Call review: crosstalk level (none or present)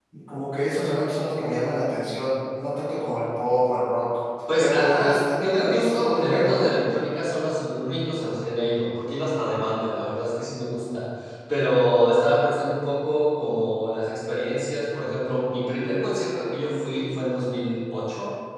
present